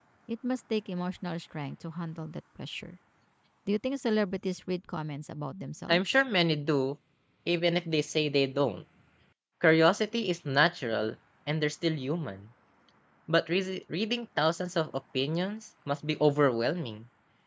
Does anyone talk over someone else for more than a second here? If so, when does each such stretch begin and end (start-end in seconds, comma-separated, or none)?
none